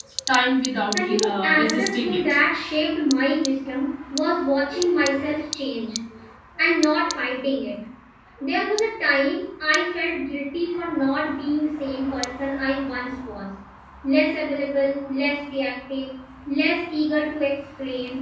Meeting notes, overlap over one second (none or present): present